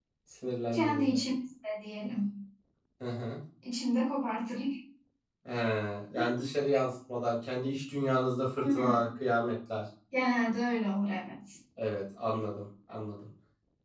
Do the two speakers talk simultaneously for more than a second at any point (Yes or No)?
No